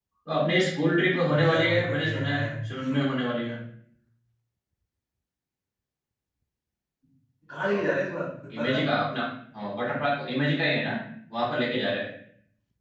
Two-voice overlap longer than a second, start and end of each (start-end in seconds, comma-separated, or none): 1.1-2.4